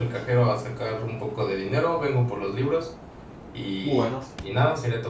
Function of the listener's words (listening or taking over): listening